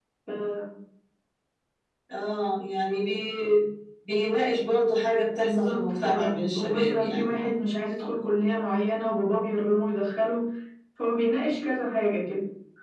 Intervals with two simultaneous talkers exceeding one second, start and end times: 5.4-7.3

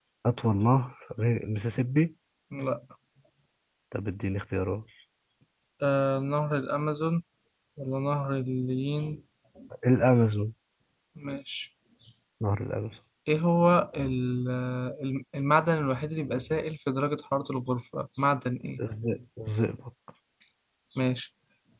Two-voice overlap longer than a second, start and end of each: none

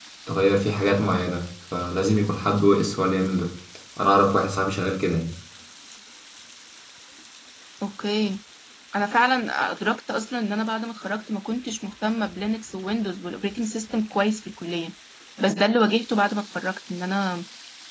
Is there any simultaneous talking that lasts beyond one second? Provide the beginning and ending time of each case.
none

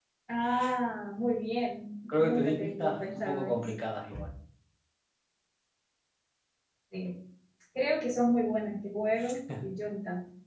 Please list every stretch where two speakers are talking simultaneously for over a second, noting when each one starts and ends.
2.1-3.7

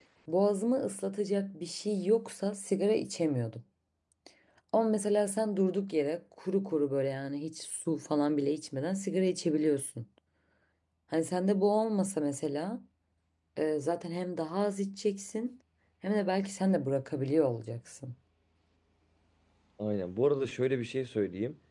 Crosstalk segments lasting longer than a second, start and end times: none

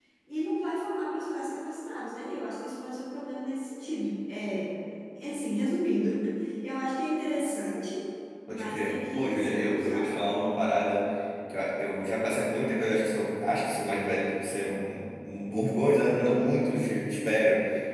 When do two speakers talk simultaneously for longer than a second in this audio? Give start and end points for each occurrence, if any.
8.5-10.1

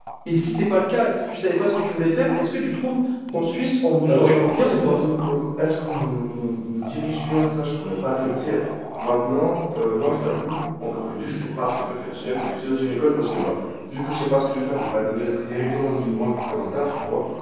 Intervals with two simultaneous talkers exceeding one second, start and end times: none

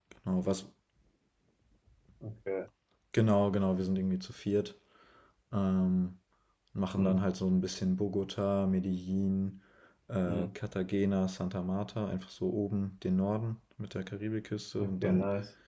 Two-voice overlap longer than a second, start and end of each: none

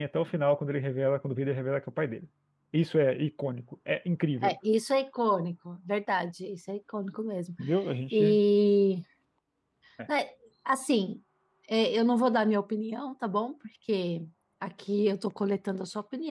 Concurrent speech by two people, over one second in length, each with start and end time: none

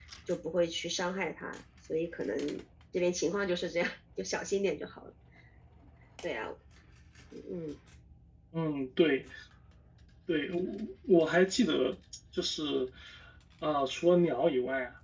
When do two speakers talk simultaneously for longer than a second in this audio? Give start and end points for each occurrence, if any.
none

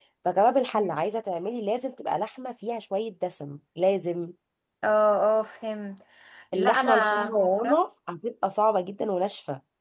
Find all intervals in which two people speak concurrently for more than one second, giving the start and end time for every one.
6.5-7.8

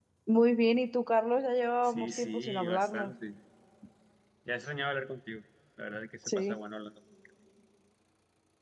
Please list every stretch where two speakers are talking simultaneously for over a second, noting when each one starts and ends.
1.8-3.1

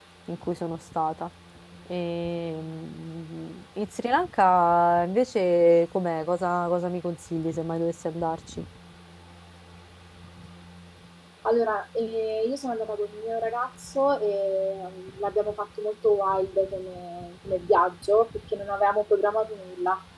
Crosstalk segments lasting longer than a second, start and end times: none

